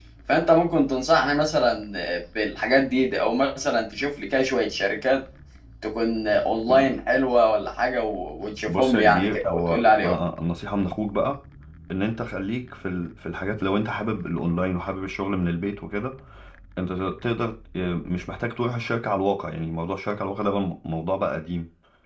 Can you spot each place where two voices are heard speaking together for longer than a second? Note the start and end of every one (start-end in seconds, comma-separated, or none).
8.7-10.2